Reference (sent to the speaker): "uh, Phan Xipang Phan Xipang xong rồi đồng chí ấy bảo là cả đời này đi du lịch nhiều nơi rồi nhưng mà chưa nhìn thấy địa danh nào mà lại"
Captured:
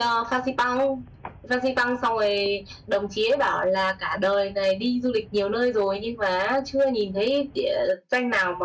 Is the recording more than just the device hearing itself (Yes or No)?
No